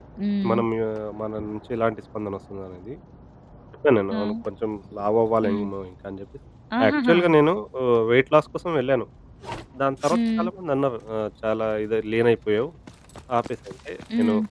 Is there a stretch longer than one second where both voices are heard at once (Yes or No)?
No